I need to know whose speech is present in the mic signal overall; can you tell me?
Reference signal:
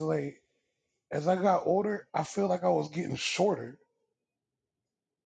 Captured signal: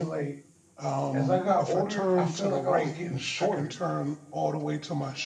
both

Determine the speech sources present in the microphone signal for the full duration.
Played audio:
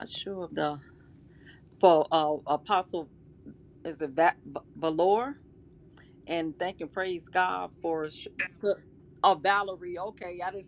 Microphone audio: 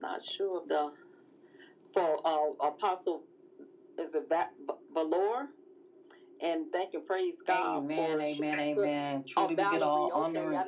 both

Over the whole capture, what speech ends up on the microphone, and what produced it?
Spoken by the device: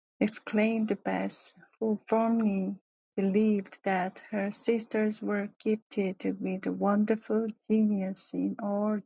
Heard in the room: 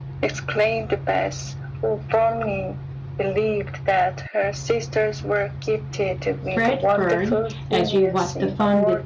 both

